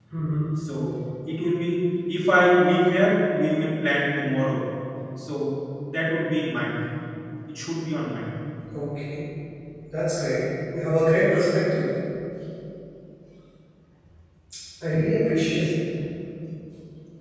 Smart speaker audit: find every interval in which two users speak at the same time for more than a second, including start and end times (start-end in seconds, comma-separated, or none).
none